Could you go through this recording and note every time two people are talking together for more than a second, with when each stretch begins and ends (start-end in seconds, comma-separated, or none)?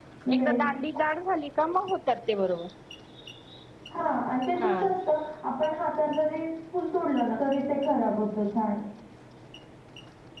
none